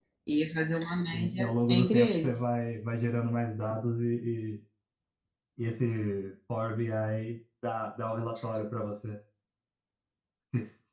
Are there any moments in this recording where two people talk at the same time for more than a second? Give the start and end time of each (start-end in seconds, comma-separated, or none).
1.1-2.3